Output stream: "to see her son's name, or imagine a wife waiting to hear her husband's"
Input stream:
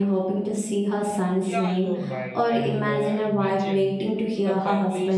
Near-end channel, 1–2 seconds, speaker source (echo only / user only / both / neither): both